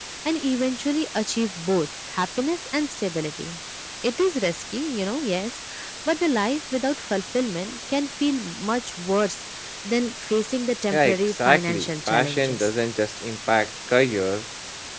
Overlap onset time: 11 s

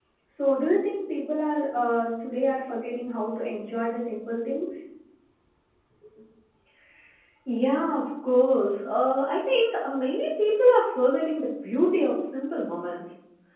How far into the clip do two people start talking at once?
none

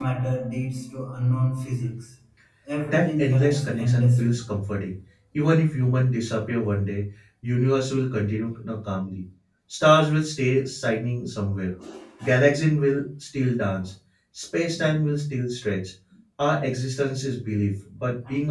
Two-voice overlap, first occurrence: 3 s

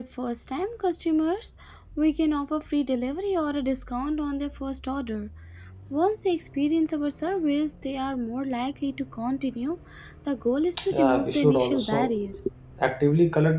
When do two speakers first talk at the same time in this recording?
11 s

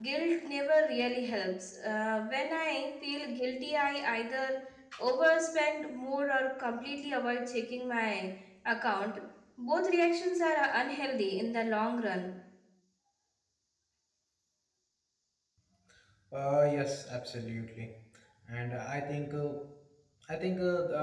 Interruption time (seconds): none

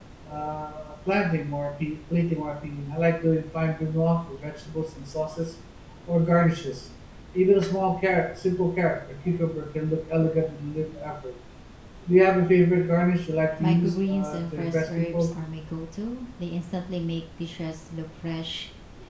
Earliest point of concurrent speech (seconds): 14 s

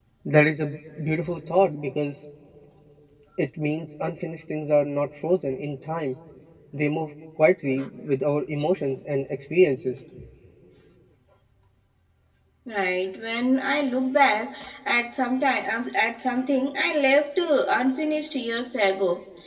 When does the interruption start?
none

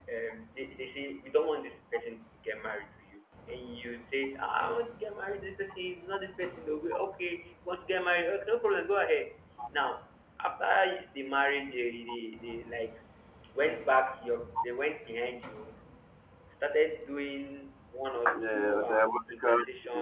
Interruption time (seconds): 18 s

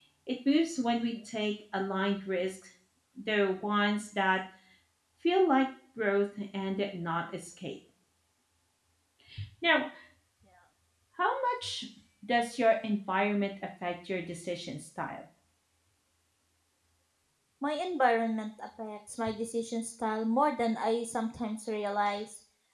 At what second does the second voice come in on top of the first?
none

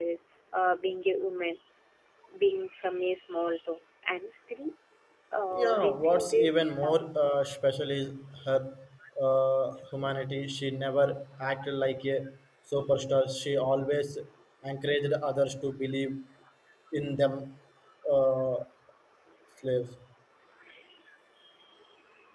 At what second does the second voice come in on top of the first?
6 s

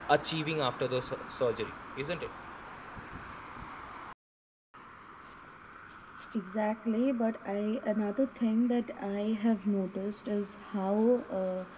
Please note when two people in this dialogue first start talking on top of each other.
none

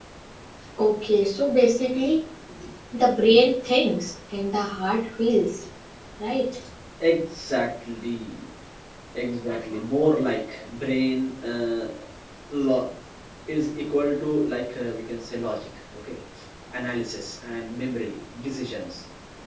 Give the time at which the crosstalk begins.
none

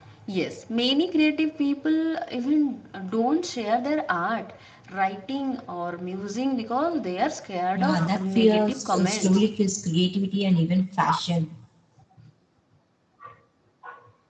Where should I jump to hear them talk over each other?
8 s

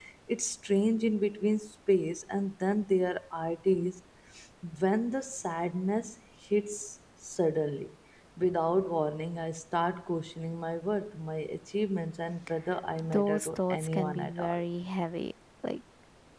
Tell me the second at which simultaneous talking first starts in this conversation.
13 s

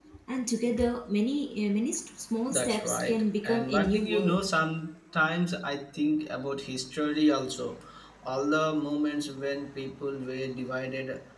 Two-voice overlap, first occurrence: 2 s

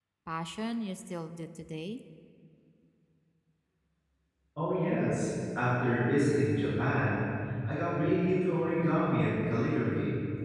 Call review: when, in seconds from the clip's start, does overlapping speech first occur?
none

